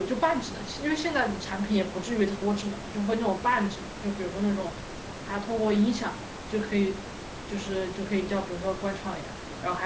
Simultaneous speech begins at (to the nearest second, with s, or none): none